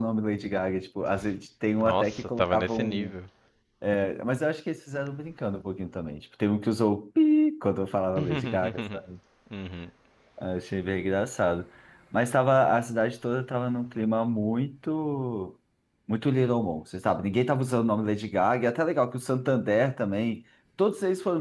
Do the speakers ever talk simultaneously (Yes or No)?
Yes